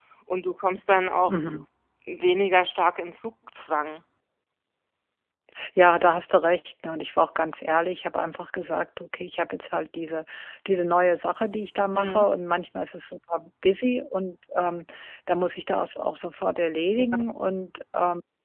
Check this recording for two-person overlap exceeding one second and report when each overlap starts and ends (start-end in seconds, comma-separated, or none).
none